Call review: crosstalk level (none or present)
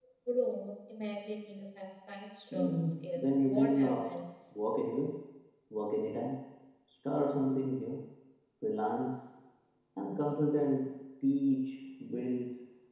present